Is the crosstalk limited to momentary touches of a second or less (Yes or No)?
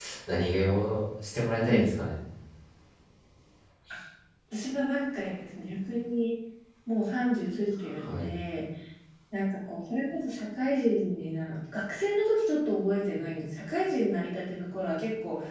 Yes